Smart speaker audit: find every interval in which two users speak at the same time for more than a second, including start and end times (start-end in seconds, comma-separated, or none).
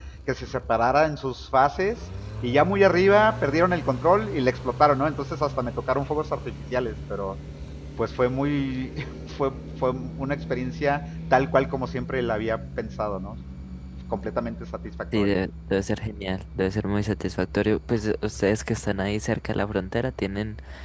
none